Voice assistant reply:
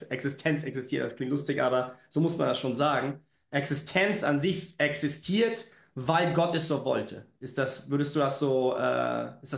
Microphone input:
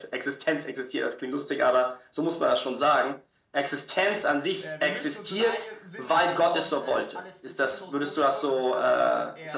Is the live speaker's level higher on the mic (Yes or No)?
No